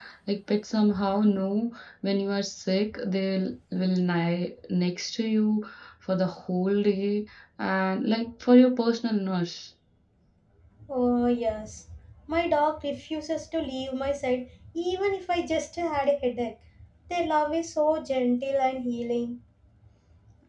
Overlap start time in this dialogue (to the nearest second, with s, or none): none